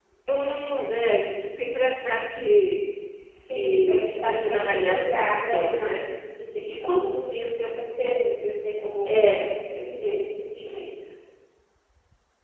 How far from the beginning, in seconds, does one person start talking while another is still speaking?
4 s

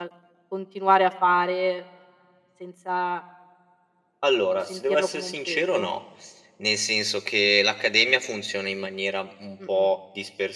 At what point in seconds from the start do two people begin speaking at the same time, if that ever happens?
5 s

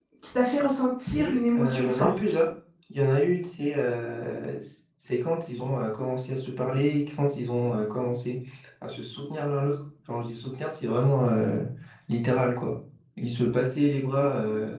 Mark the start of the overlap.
1 s

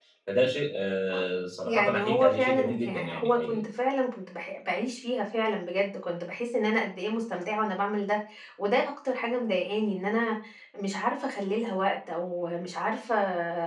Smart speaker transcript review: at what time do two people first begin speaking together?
2 s

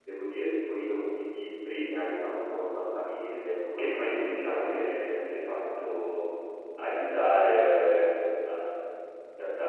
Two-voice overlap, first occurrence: 4 s

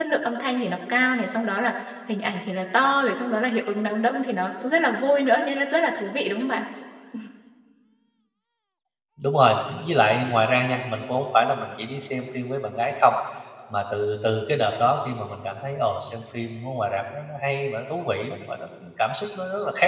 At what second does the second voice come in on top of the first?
none

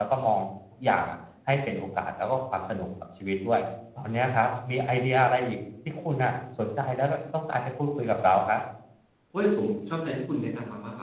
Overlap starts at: none

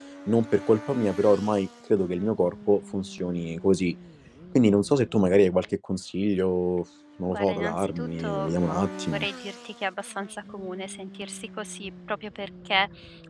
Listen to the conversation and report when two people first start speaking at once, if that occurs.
7 s

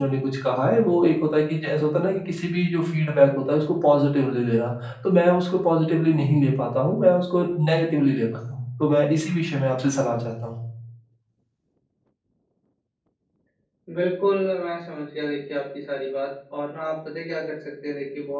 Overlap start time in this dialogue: none

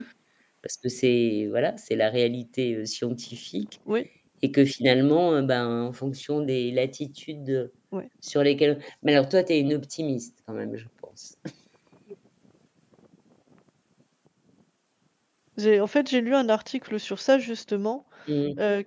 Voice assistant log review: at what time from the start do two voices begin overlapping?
none

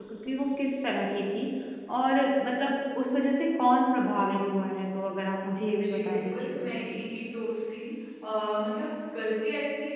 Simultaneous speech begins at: 6 s

